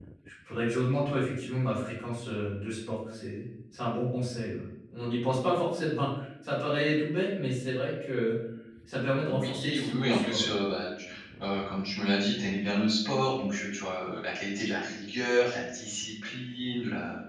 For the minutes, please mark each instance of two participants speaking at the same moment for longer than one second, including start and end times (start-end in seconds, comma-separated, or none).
9.3-10.5